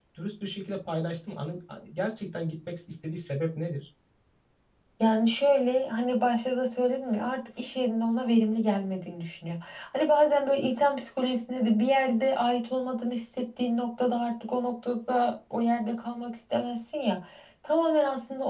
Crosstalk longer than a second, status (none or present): none